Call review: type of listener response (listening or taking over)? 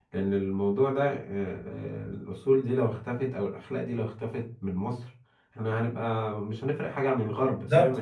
taking over